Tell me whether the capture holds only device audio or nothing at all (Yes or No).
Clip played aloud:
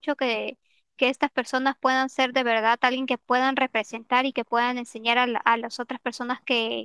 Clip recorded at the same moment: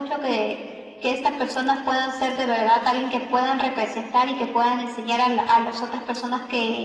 Yes